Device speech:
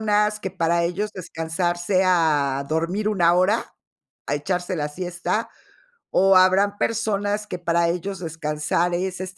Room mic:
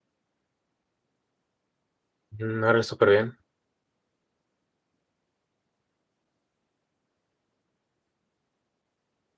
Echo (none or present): none